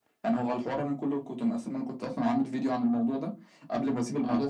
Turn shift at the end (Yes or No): No